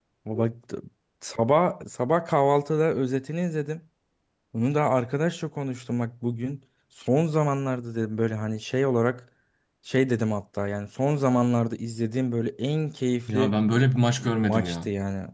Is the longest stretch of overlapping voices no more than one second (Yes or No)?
Yes